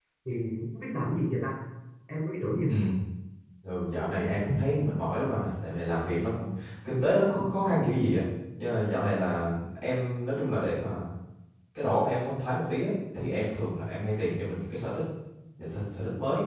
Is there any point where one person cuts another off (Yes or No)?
No